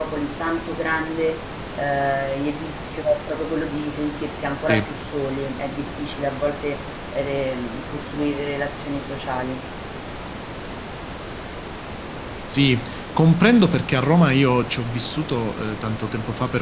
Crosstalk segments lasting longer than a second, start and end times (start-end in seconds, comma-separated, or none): none